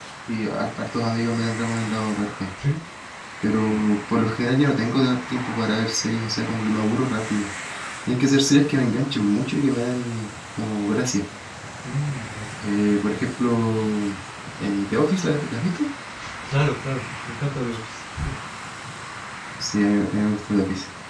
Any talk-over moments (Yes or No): No